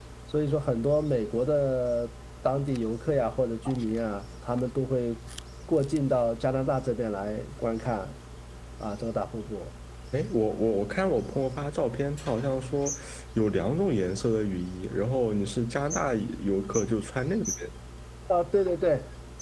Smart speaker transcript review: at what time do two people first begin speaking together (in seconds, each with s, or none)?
none